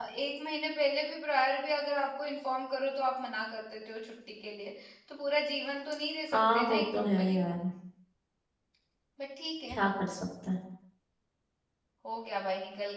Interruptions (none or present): present